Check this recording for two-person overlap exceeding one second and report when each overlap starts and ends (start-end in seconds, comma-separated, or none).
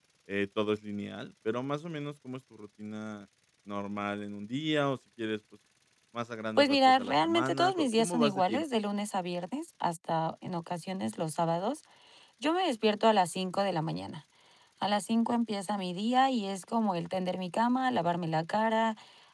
6.6-8.6